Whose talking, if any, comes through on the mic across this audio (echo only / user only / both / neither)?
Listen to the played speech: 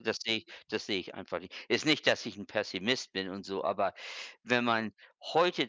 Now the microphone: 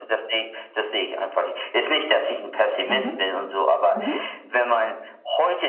both